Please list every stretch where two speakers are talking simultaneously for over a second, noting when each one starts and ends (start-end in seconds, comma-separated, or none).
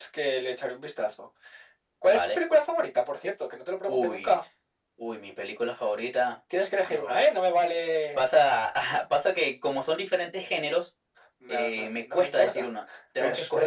11.5-12.7